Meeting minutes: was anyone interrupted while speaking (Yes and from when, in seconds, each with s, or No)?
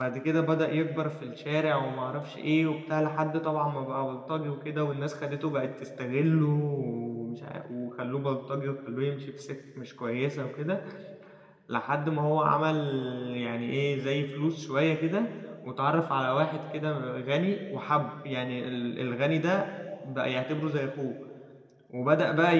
No